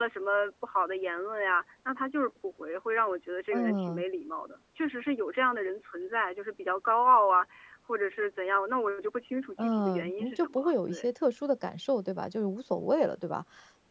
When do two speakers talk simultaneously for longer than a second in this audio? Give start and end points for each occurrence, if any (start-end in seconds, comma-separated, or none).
9.6-11.0